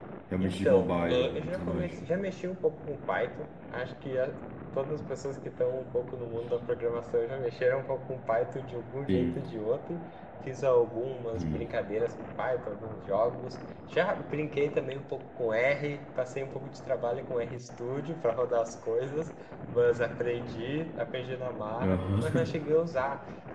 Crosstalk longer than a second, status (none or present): present